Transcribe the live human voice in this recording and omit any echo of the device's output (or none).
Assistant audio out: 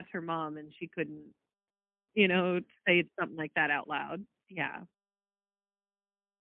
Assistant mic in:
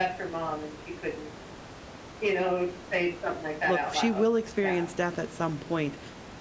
"Look, she will experience death at some point,